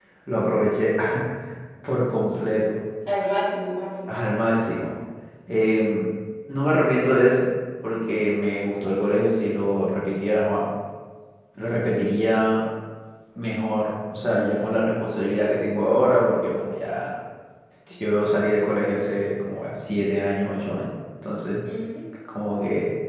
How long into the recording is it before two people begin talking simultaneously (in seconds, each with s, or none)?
none